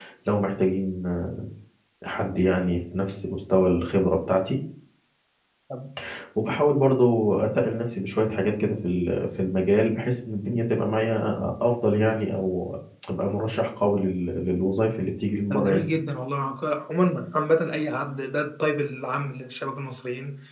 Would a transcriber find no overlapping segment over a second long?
Yes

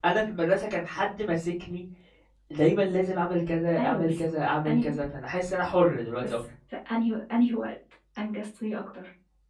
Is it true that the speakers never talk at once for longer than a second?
Yes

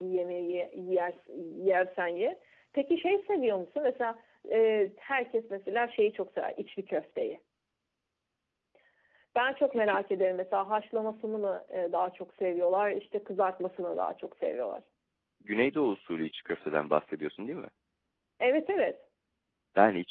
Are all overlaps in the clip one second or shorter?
Yes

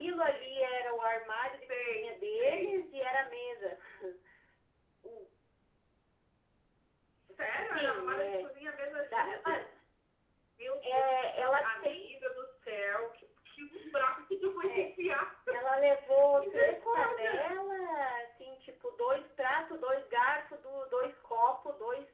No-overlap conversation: No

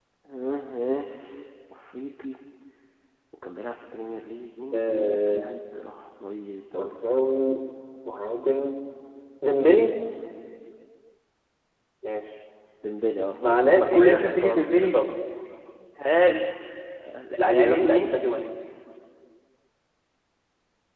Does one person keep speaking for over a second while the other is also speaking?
Yes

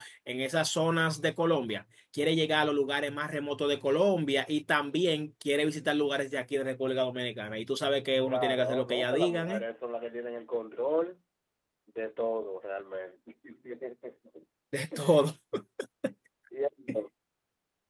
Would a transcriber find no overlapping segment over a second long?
No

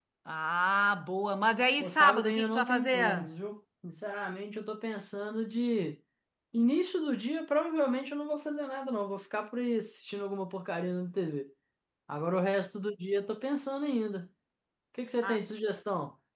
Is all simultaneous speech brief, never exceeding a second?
No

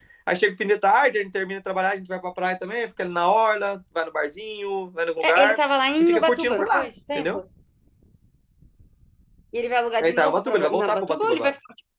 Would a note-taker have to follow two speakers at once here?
Yes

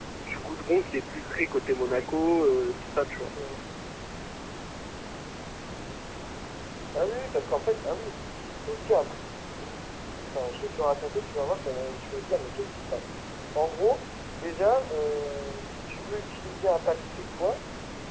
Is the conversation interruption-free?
Yes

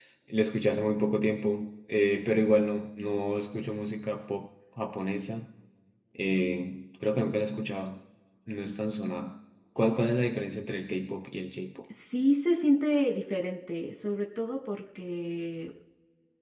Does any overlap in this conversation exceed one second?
No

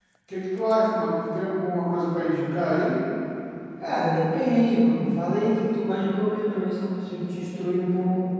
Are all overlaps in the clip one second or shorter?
Yes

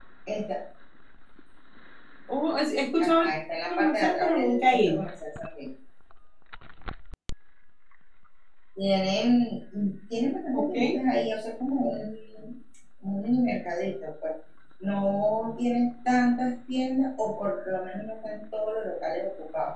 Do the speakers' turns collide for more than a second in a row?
Yes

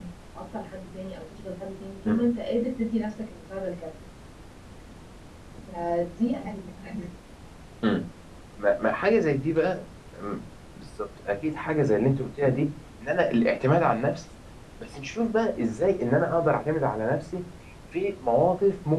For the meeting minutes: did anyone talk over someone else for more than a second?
No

